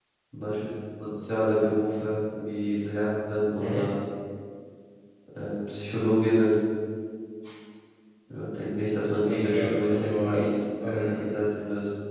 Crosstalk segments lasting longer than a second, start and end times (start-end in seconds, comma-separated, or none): 9.2-11.3